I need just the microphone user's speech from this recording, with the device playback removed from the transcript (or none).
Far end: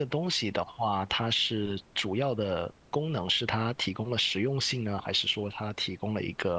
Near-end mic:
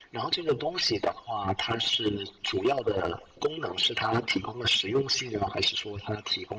none